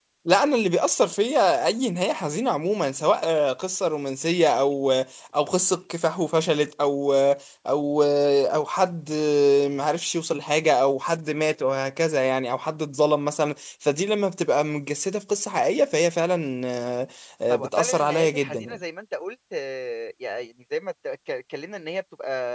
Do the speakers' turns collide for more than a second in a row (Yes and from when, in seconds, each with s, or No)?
Yes, from 17.5 s